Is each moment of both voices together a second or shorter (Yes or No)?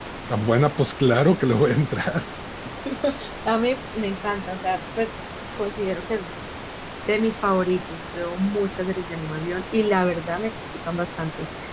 Yes